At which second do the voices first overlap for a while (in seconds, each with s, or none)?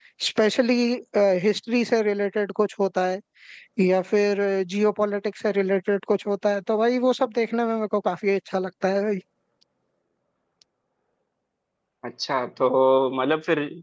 none